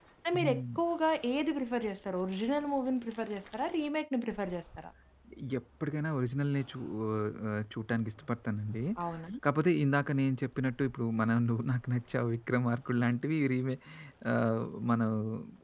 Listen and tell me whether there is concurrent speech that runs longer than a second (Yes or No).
No